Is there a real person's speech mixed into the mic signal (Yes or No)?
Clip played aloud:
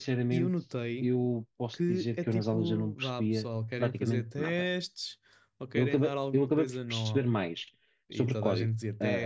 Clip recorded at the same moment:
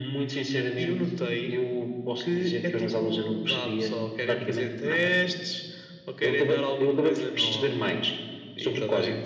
No